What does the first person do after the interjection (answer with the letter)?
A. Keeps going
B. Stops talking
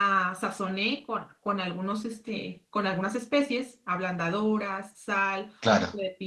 A